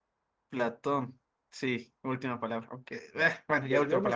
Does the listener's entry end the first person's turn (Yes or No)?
Yes